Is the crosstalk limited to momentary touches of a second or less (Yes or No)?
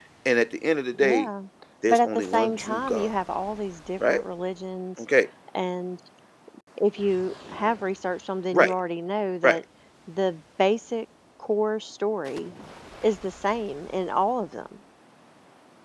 No